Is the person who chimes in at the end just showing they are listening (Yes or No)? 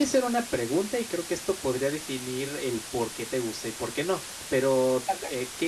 Yes